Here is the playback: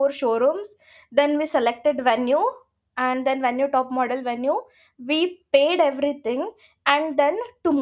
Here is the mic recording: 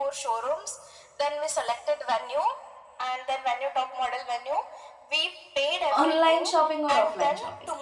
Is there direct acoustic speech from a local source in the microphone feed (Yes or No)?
Yes